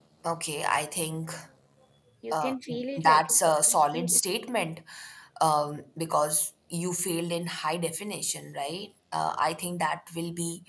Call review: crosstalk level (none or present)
present